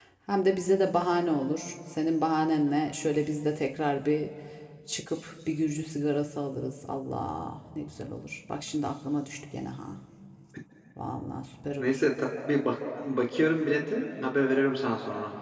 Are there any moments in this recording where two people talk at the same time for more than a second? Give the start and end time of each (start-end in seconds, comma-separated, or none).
none